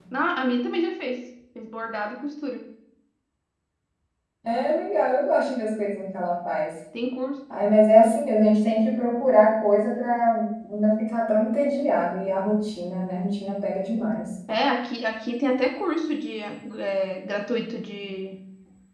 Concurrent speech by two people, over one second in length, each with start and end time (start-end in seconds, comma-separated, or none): none